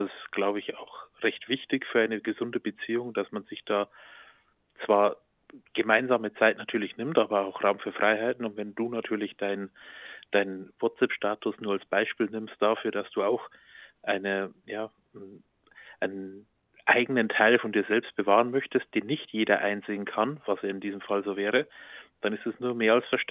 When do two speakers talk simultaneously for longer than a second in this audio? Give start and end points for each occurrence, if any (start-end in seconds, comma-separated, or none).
none